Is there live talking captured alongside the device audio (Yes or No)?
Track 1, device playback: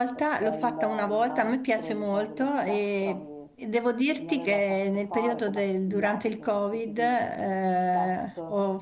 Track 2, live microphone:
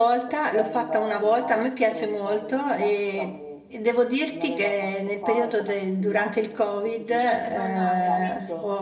Yes